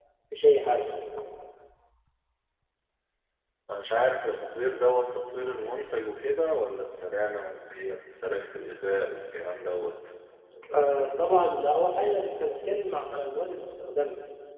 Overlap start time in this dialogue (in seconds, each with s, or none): none